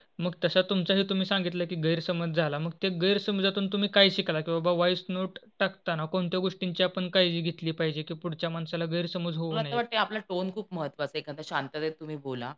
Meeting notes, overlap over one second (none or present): none